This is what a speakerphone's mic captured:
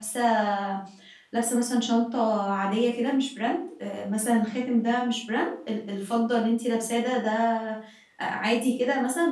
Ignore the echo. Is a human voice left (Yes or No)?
Yes